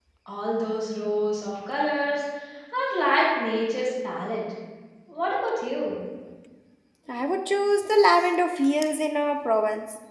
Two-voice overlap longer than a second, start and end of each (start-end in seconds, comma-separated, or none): none